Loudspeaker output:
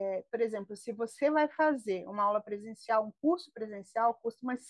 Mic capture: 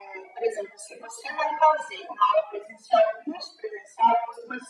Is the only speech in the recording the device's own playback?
Yes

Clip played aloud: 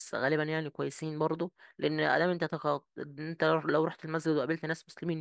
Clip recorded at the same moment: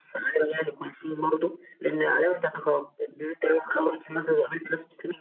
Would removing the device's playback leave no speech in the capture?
Yes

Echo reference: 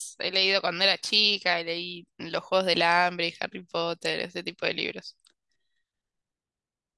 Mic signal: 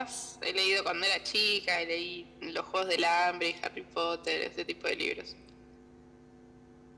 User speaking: No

